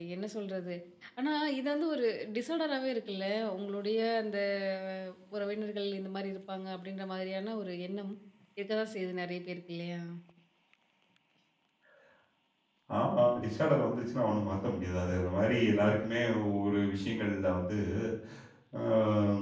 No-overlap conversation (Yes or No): Yes